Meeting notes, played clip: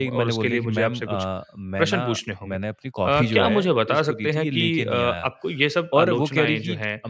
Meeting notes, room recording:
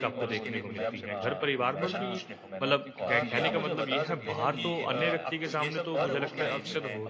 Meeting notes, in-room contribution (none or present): present